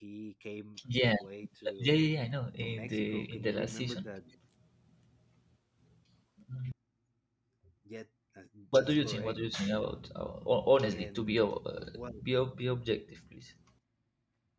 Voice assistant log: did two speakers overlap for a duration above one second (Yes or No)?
Yes